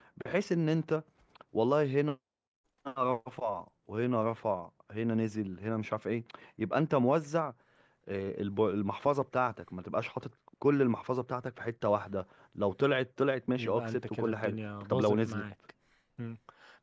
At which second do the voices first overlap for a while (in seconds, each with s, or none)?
13.6 s